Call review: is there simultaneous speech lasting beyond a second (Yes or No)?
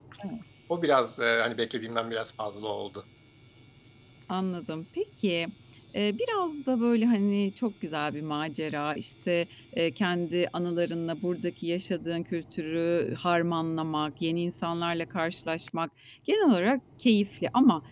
No